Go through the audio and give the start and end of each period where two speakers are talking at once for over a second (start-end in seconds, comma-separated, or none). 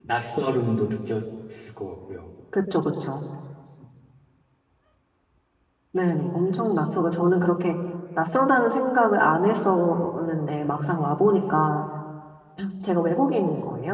none